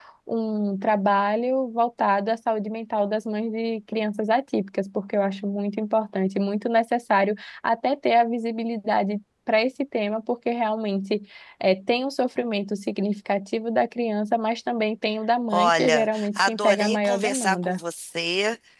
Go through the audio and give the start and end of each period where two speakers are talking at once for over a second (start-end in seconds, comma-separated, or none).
15.5-17.8